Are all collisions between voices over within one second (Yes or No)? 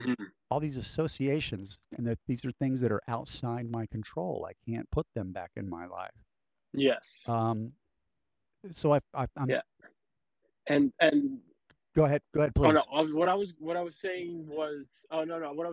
Yes